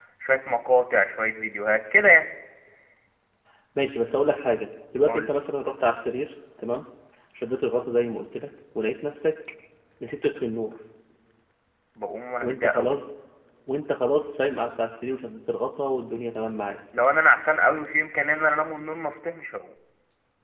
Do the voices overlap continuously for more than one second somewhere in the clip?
No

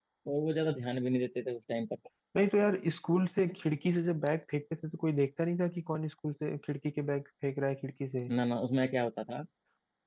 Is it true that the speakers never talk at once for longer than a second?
Yes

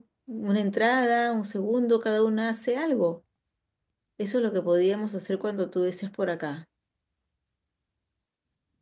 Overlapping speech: No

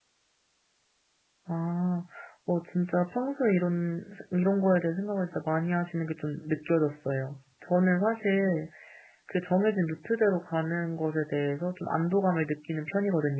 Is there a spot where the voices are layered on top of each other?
No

